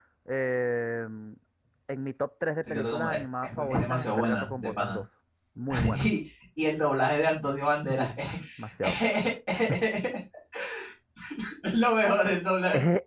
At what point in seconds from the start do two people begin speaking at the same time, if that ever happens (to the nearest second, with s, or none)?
3 s